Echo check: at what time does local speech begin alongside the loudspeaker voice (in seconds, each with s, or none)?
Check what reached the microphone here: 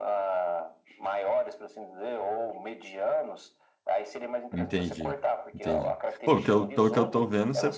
4.5 s